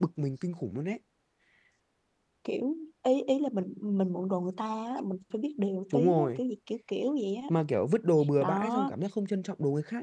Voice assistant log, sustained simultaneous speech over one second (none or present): none